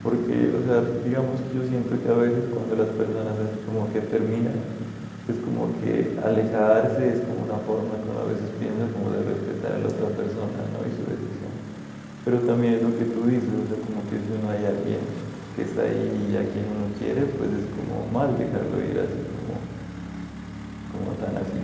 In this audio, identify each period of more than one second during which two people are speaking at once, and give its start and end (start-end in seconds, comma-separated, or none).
none